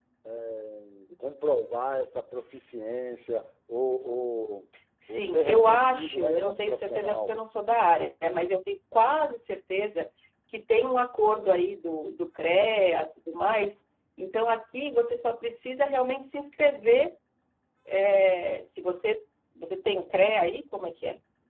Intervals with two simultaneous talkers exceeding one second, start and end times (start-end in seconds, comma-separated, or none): 5.1-7.3